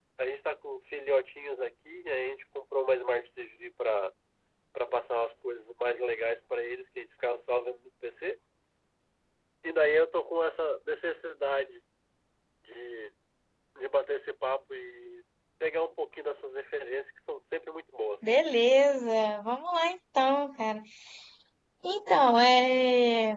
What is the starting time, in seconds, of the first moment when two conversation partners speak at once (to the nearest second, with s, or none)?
none